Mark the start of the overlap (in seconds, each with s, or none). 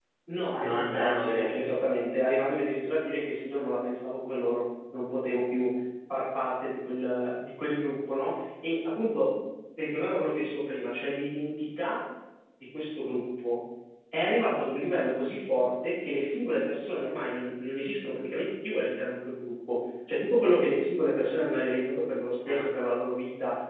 0.5 s